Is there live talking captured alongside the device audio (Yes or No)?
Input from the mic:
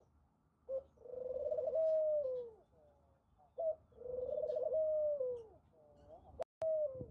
No